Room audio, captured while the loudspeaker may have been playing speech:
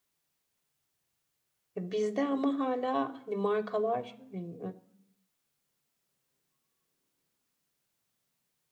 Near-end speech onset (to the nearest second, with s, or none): 2 s